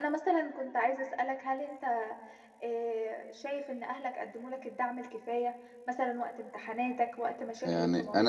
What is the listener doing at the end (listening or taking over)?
taking over